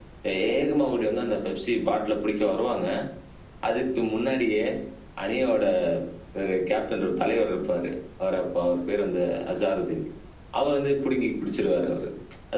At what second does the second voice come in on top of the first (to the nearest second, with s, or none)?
none